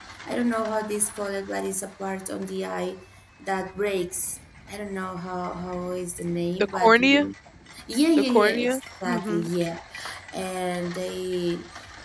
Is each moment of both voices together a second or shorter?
No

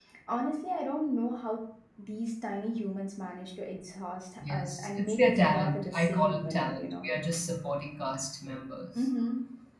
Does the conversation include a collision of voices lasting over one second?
Yes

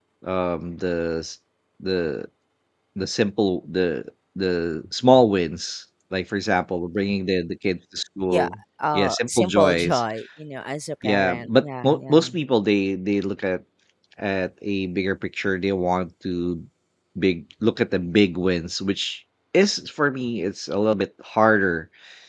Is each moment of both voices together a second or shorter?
No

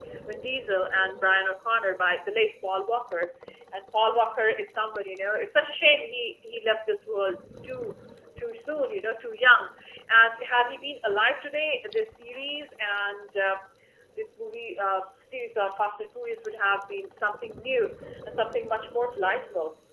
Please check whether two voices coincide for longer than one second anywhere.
No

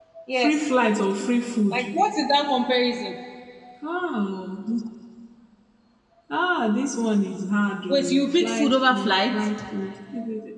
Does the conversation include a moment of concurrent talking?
Yes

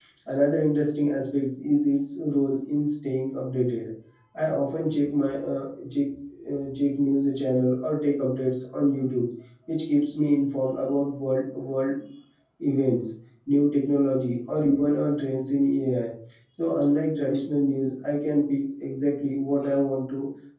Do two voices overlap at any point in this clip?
No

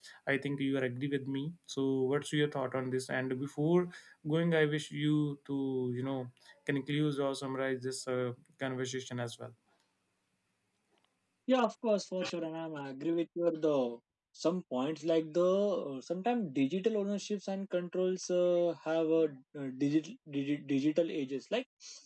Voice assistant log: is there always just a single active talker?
Yes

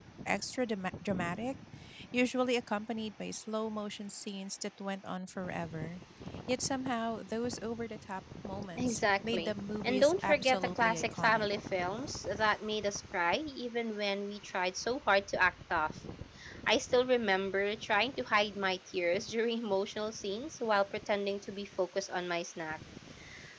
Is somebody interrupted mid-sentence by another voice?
Yes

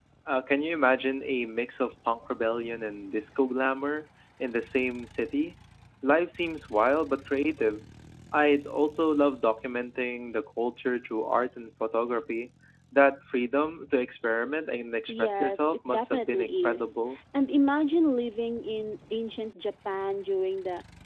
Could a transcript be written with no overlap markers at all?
No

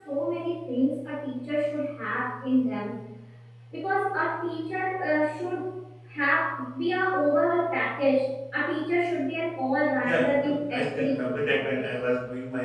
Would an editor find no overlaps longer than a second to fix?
No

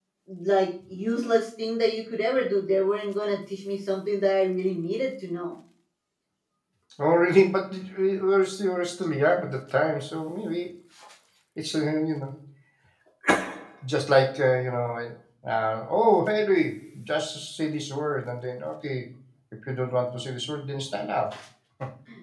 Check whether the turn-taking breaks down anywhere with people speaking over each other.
No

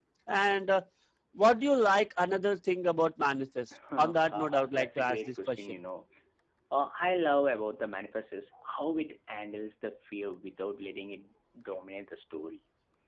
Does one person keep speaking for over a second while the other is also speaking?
Yes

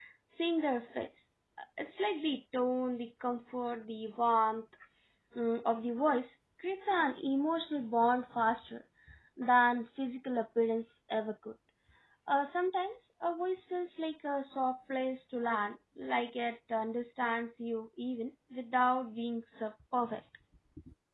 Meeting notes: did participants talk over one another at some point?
No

